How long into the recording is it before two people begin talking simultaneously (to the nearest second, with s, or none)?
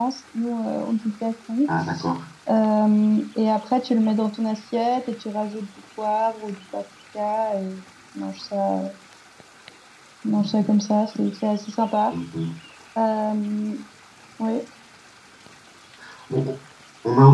none